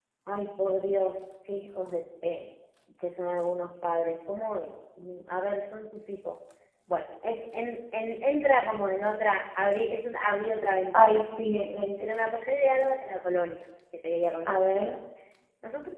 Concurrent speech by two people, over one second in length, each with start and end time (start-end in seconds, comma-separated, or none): none